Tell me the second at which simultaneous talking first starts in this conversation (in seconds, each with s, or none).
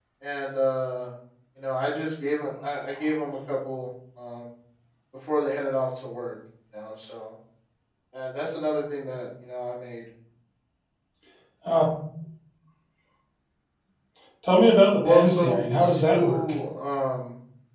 15.0 s